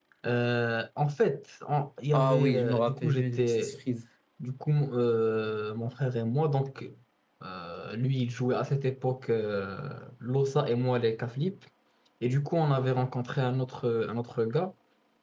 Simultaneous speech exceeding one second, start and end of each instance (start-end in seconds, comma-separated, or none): 2.1-3.7